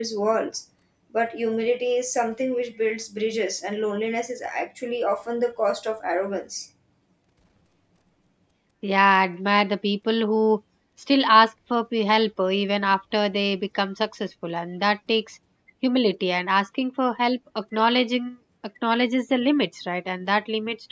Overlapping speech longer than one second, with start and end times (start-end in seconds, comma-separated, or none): none